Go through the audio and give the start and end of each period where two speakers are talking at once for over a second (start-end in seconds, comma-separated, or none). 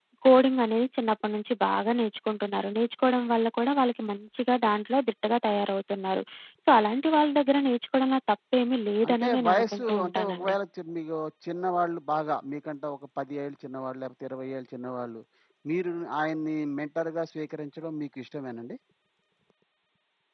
9.1-10.6